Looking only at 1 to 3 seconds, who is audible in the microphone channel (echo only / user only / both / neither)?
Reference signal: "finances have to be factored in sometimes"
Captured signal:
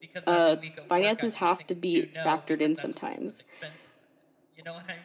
both